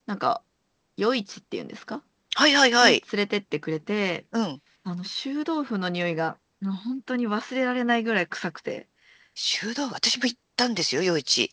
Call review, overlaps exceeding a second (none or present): none